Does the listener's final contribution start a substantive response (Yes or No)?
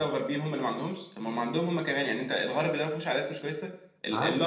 No